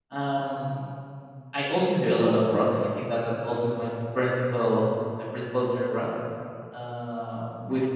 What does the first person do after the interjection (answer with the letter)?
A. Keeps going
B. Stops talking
A